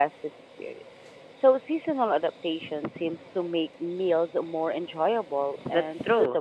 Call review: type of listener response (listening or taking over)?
taking over